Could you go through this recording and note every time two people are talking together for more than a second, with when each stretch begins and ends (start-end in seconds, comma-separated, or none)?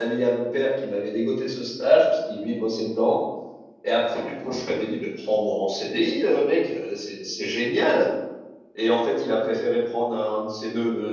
none